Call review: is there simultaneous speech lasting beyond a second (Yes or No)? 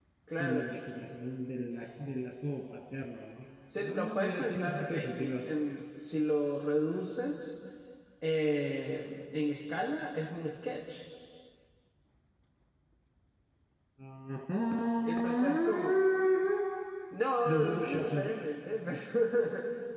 Yes